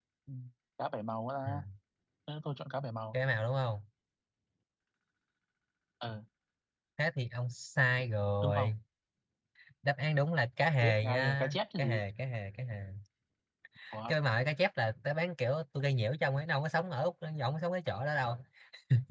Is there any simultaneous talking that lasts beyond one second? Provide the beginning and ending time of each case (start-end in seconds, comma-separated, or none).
10.8-12.0